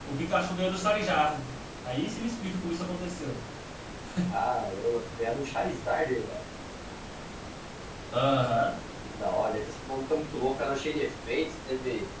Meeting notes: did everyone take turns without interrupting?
Yes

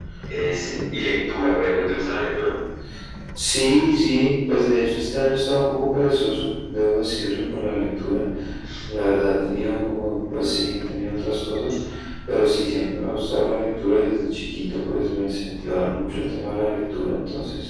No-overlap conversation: Yes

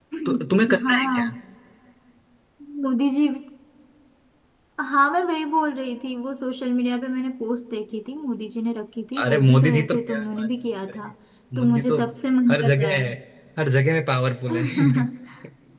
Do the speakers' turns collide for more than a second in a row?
Yes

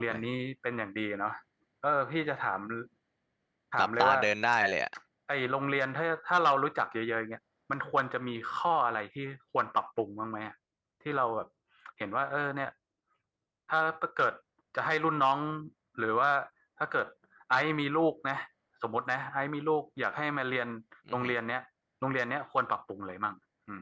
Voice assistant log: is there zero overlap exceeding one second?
Yes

